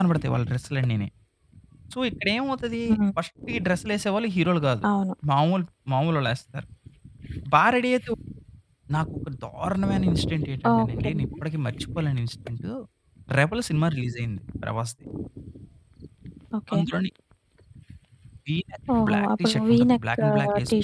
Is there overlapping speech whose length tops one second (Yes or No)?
Yes